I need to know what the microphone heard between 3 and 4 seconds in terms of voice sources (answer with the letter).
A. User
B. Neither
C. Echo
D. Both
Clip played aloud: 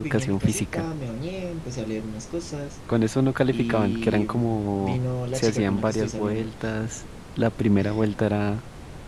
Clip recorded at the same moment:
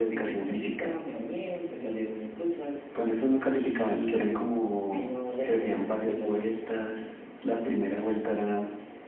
C